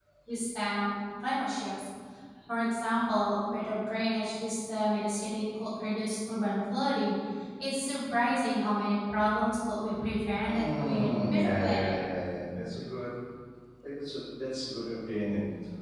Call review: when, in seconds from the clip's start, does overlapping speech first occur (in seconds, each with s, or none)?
10.4 s